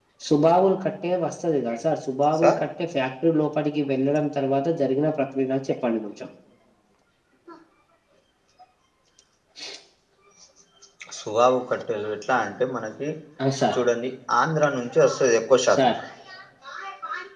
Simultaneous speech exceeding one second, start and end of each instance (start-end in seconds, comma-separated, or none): none